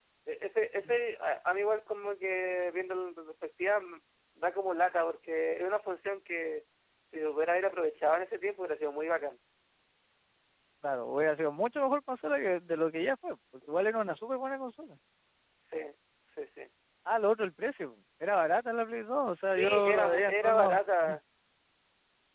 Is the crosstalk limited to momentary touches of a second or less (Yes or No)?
No